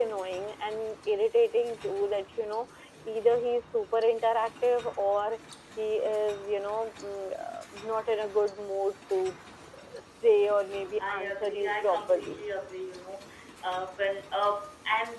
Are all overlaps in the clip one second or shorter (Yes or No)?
No